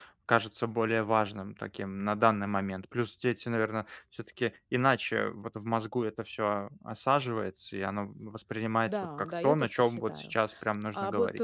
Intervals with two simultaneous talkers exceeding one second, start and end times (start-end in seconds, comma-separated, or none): 8.9-10.3